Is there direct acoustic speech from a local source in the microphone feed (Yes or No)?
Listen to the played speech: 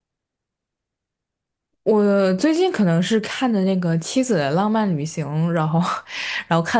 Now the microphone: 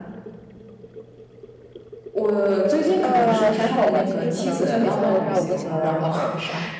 Yes